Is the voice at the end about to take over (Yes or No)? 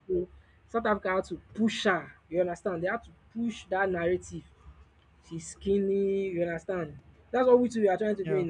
No